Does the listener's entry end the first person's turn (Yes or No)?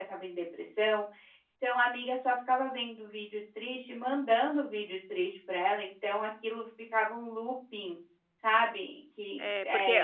Yes